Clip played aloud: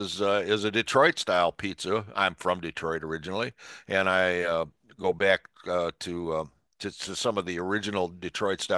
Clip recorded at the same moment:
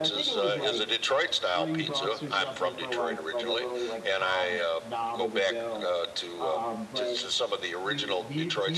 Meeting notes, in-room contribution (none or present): present